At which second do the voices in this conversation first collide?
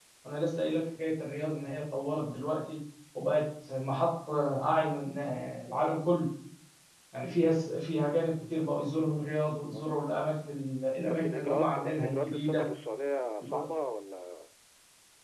11.1 s

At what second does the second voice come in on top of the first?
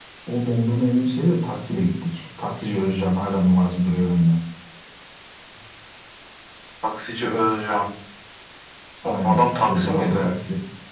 9.0 s

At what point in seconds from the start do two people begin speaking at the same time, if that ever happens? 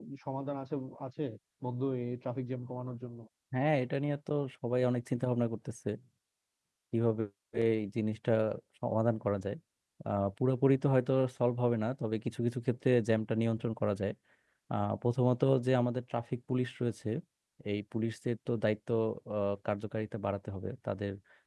none

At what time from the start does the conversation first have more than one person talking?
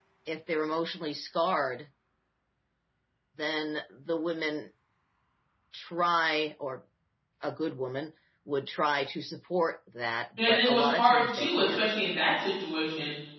10.4 s

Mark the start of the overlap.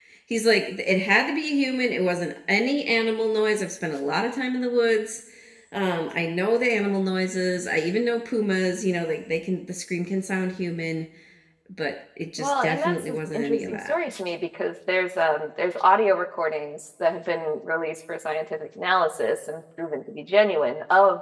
12.4 s

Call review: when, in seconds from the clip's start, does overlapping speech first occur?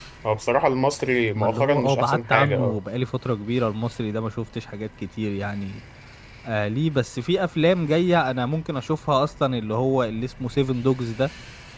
1.4 s

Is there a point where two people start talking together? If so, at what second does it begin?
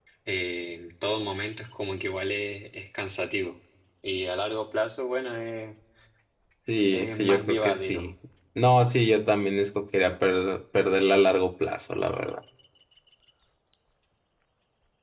6.8 s

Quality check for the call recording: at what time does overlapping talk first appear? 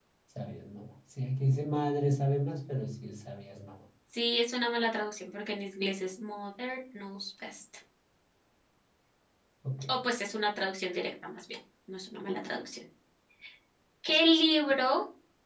none

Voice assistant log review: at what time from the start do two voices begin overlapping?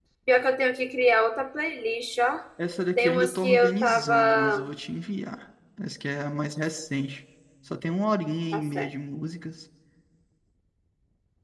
3.0 s

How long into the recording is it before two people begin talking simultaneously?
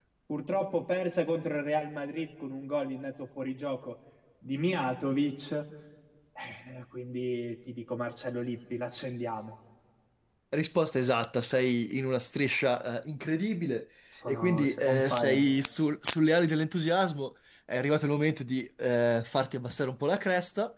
14.3 s

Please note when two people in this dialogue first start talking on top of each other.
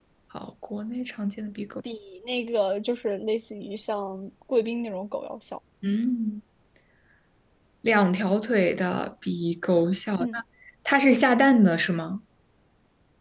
none

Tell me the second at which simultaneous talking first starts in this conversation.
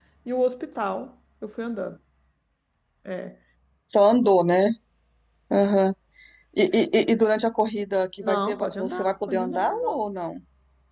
8.2 s

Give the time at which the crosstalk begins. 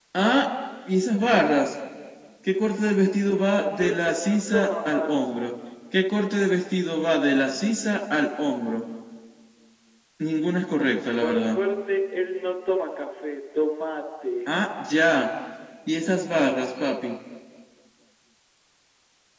3.6 s

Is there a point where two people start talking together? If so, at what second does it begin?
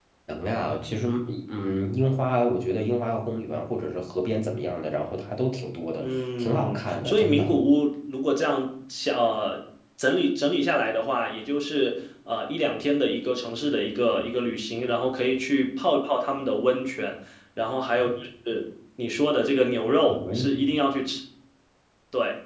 6.0 s

